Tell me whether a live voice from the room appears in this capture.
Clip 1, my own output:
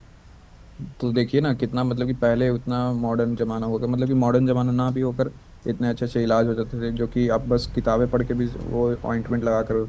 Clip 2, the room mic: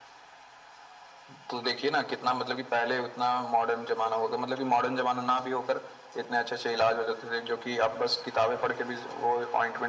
No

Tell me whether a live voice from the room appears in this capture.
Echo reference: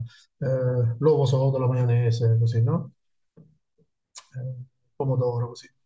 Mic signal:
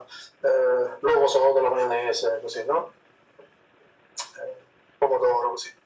No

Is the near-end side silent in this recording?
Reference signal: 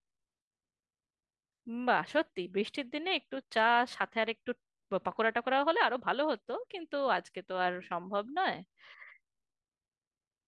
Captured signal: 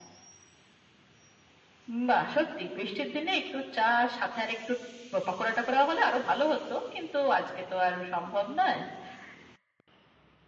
Yes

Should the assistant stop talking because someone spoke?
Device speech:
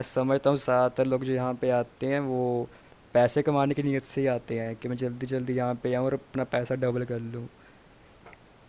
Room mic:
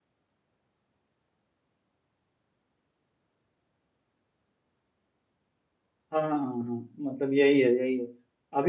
Yes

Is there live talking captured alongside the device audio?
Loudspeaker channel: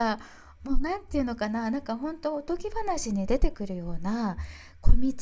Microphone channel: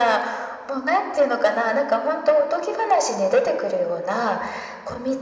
No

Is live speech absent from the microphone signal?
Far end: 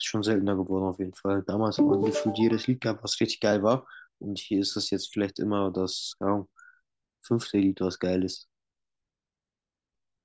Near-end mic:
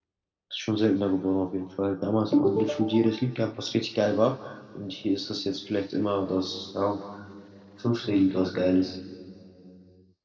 Yes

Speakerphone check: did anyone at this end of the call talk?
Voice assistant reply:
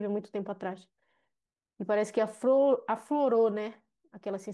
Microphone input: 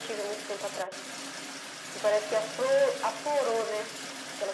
No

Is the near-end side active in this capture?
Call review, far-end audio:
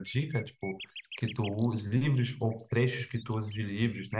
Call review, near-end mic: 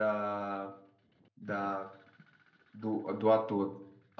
Yes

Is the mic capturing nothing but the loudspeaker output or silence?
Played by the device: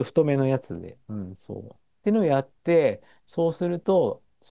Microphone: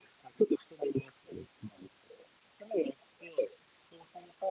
Yes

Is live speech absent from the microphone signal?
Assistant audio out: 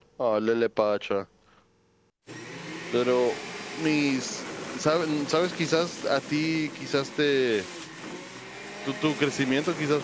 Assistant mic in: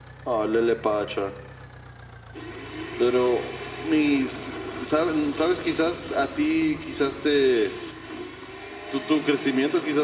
Yes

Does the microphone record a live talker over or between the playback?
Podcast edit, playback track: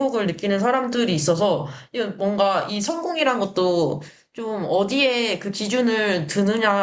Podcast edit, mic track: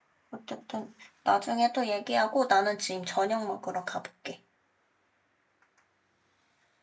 Yes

